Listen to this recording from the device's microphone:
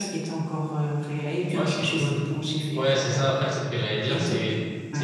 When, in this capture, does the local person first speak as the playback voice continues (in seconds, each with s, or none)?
none